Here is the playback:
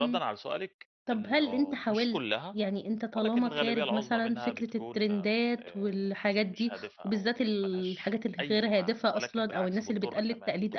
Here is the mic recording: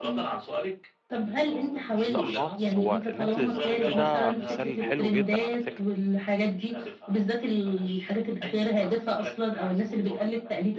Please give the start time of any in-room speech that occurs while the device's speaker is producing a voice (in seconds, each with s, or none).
2.0 s